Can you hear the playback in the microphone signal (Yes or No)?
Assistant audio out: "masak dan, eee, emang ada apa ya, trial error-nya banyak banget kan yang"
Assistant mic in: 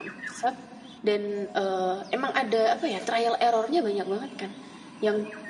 Yes